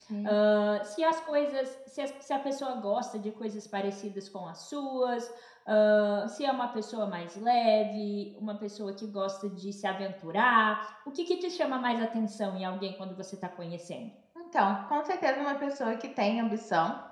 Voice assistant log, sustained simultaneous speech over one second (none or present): none